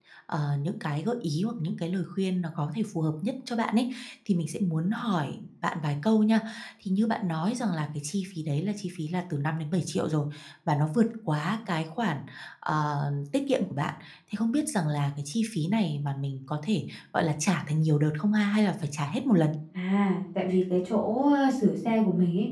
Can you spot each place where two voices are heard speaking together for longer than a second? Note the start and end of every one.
none

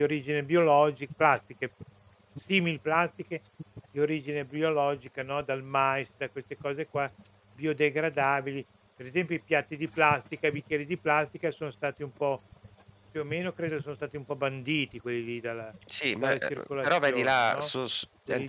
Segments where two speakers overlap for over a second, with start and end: 16.2-17.7

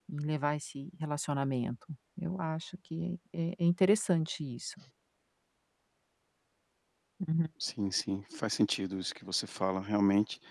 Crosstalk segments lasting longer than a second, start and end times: none

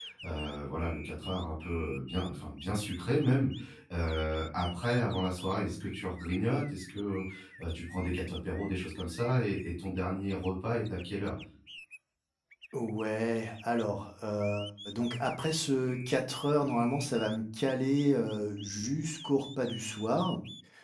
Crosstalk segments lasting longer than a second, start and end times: none

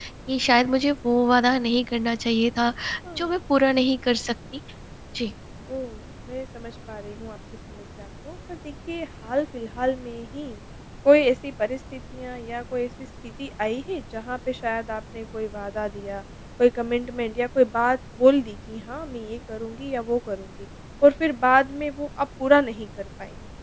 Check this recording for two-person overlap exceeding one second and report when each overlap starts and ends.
none

